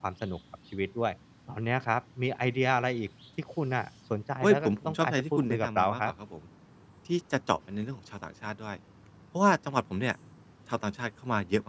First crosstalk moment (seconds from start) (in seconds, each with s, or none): 4.4 s